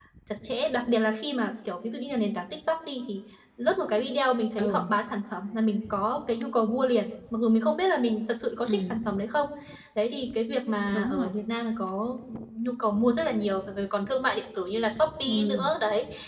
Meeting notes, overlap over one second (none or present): none